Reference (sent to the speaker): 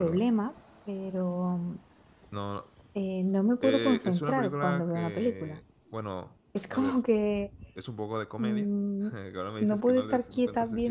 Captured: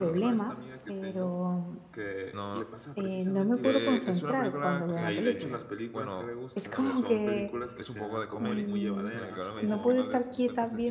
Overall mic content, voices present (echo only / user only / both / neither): both